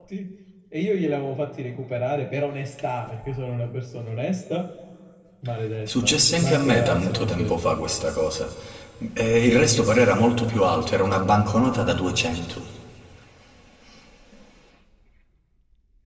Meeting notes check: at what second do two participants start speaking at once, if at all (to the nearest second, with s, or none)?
6 s